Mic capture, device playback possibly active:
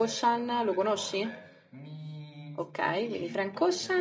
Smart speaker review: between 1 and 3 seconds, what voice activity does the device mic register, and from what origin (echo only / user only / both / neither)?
both